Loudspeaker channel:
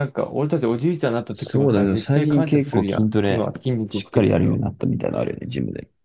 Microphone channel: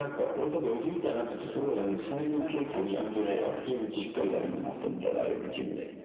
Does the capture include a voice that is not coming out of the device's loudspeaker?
No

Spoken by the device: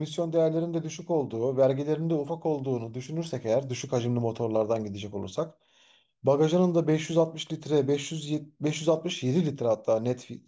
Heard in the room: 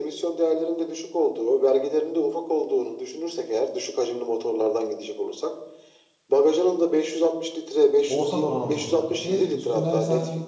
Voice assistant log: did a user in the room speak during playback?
Yes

